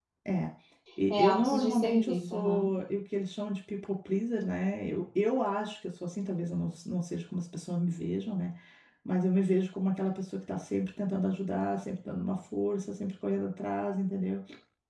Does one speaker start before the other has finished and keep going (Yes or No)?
Yes